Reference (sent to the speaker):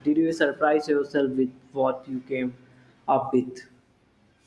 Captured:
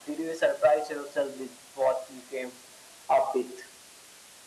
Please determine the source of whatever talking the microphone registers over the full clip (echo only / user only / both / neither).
echo only